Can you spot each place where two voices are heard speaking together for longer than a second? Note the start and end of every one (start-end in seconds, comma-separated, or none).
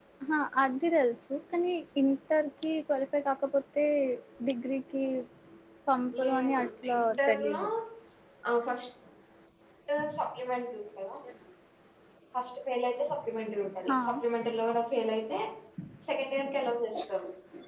6.2-7.6